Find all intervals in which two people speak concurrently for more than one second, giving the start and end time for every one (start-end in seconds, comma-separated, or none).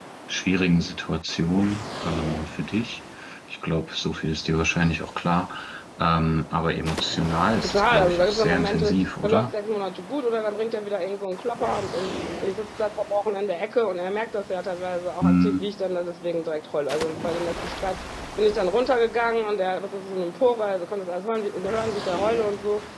7.6-9.5